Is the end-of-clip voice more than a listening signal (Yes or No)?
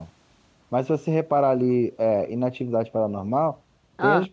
No